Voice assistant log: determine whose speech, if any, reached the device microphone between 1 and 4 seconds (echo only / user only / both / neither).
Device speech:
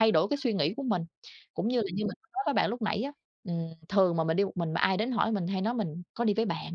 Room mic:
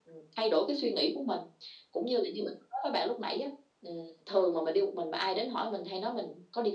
echo only